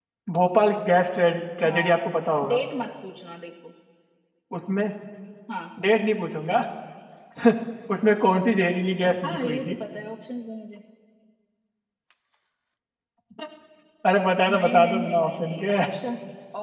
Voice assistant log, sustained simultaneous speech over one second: present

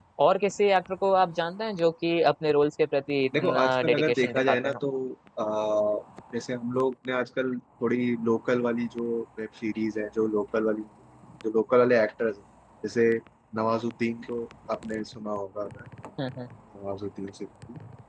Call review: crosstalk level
present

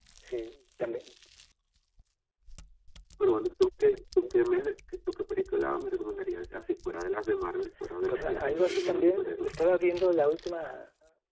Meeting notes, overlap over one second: present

